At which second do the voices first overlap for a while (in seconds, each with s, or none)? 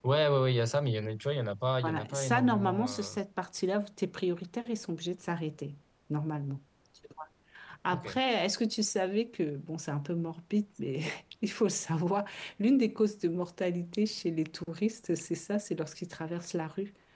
1.8 s